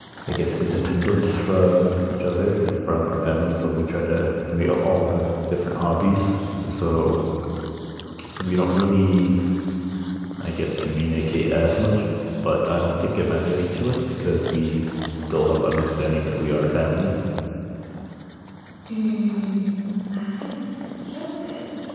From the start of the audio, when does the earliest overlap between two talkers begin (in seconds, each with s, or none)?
none